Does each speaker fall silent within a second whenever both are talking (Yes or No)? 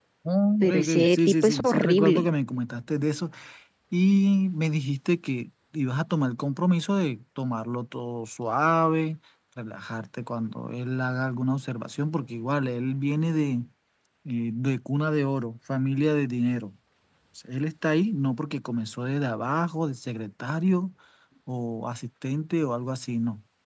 No